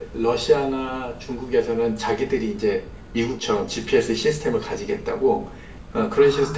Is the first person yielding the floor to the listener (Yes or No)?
No